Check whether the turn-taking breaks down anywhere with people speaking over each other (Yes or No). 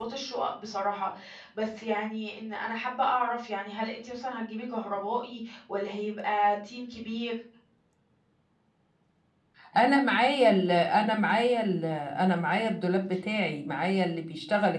No